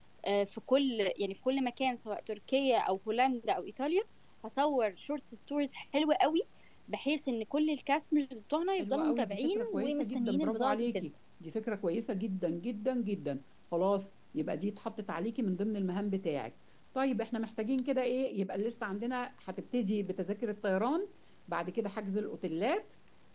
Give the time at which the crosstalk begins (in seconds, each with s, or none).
8.8 s